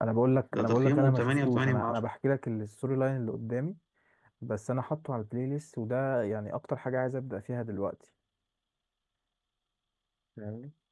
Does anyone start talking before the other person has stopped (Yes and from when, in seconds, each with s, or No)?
Yes, from 0.5 s